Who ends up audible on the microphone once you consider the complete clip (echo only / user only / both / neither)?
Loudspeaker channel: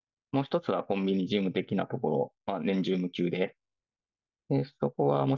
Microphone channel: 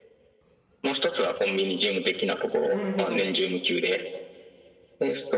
both